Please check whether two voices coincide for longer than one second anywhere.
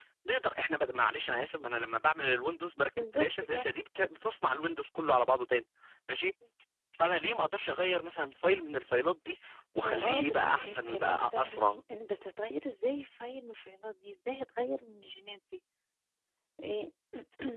Yes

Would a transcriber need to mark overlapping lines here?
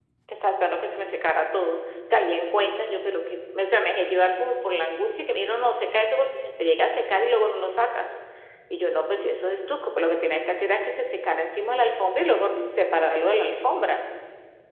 No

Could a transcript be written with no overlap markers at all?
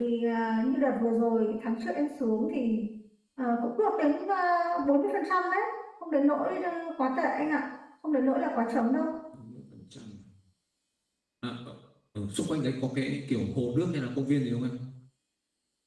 Yes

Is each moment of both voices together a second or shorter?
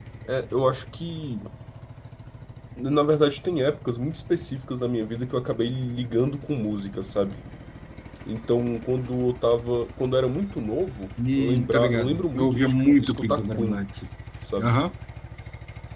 No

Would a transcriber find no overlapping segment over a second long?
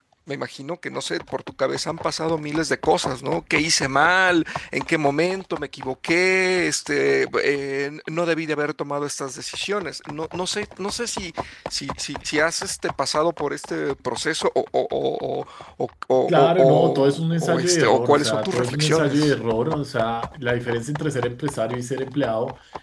No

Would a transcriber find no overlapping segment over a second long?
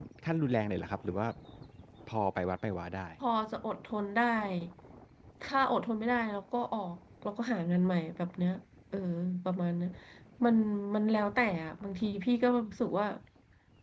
Yes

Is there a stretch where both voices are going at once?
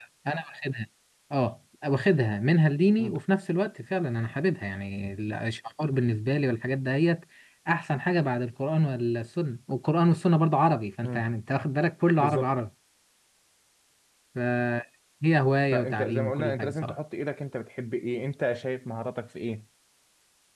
Yes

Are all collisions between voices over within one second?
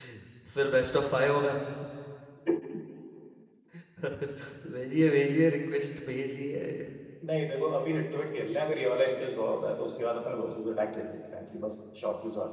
Yes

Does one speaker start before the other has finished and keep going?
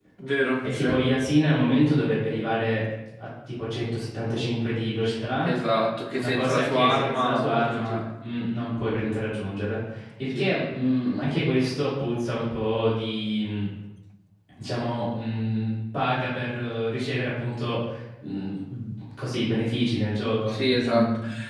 Yes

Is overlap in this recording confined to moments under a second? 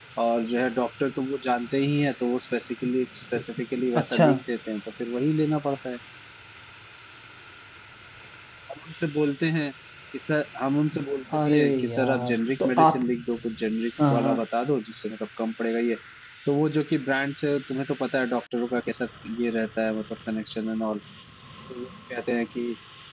No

